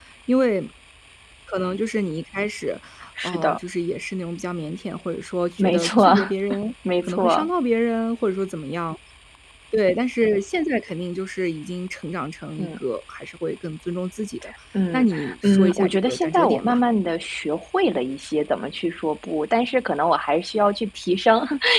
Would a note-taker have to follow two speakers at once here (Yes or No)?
Yes